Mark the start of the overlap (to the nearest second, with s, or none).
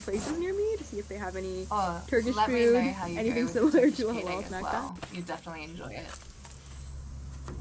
2 s